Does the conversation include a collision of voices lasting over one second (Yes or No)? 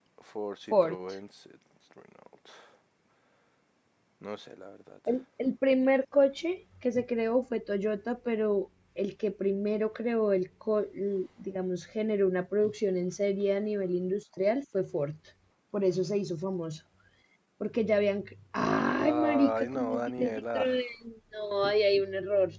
Yes